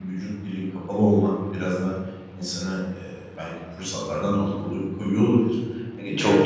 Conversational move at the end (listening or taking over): taking over